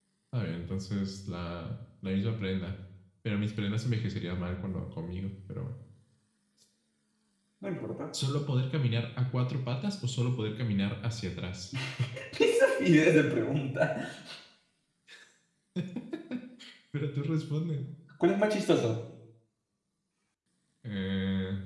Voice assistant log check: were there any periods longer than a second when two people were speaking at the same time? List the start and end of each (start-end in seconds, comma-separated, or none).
none